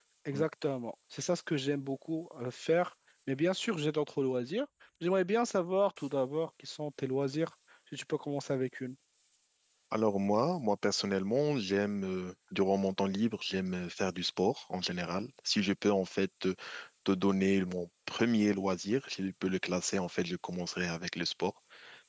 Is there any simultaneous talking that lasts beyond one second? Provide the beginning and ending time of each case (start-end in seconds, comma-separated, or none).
none